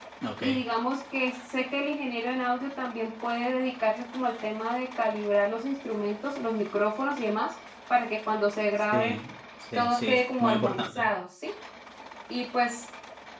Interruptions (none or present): present